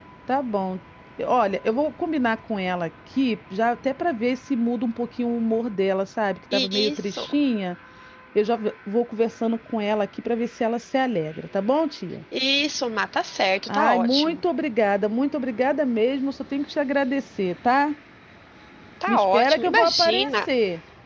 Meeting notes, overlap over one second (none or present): present